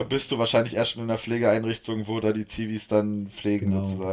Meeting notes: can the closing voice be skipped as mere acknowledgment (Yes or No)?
No